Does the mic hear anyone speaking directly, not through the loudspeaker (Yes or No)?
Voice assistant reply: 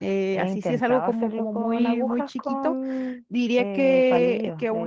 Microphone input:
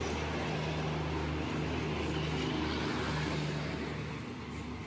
No